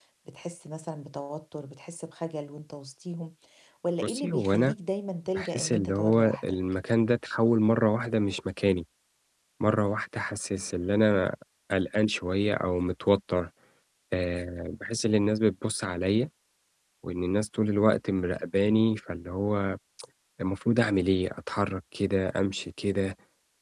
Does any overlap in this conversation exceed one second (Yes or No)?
Yes